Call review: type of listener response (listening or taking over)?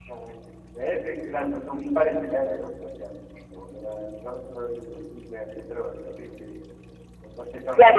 taking over